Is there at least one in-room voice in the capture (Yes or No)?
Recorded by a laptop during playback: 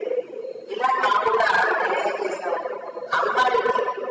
No